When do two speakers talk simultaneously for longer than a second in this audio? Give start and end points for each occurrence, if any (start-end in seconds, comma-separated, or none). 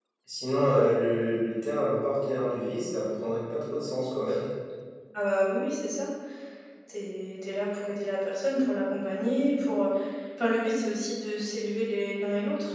none